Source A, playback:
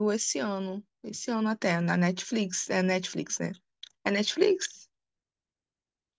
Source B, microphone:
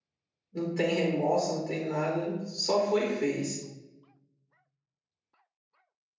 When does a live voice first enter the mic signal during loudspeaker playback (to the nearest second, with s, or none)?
1 s